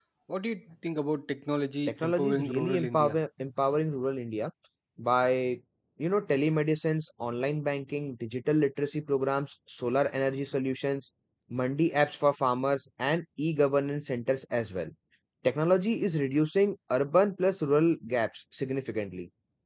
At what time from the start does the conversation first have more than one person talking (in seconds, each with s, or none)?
1.9 s